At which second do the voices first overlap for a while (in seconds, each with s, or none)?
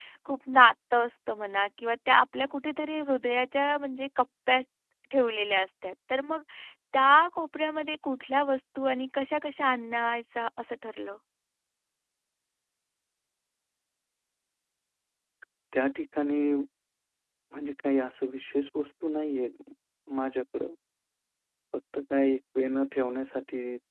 none